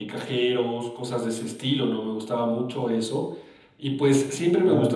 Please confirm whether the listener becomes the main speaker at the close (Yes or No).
No